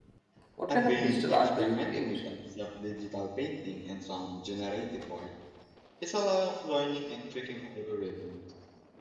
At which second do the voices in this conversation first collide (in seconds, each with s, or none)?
0.7 s